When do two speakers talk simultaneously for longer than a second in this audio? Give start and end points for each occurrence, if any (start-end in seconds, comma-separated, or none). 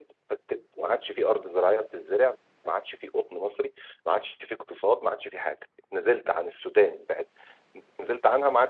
none